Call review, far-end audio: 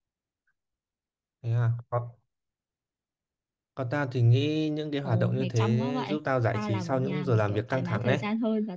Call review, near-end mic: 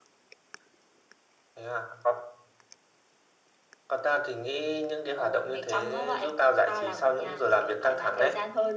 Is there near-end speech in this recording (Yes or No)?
No